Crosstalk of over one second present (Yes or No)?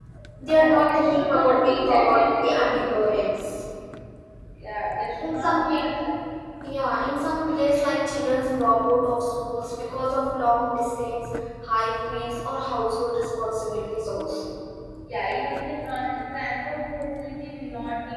Yes